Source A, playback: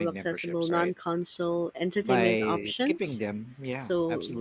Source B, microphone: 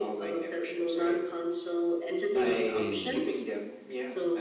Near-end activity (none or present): present